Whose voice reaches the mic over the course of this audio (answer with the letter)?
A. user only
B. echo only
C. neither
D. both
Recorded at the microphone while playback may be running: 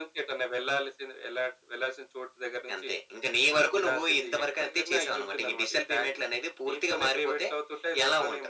B